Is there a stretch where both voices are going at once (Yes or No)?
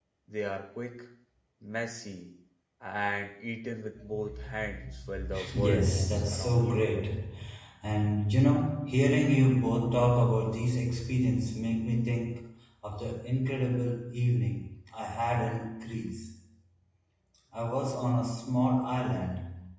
Yes